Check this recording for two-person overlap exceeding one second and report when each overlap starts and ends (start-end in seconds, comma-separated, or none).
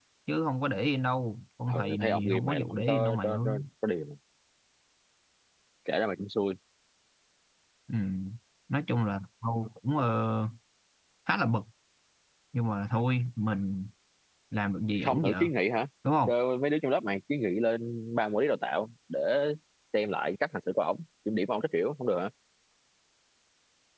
1.7-3.4